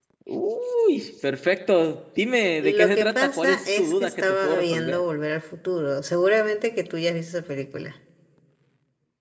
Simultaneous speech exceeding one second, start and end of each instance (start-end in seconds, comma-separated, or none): 2.6-5.0